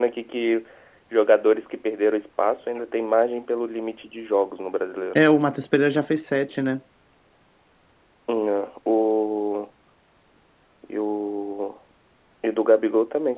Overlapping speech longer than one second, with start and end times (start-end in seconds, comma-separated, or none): none